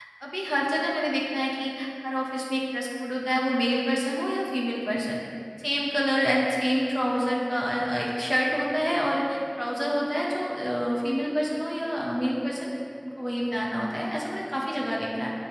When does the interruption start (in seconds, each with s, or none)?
none